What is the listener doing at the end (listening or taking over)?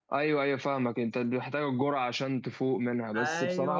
taking over